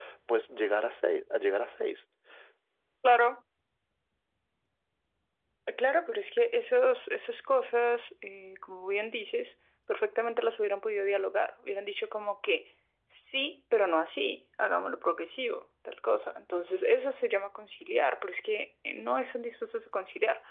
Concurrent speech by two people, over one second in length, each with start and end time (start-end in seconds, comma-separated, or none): none